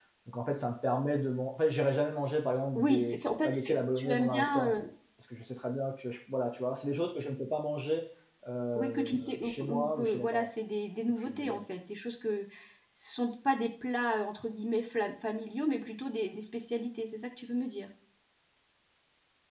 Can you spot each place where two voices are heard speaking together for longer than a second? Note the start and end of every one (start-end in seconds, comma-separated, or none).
2.8-4.7, 8.8-10.5